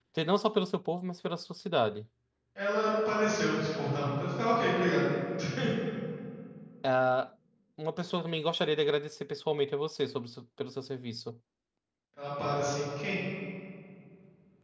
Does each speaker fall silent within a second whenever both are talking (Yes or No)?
Yes